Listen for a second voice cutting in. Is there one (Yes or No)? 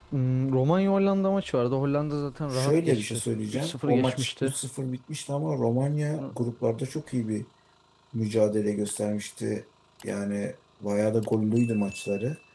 Yes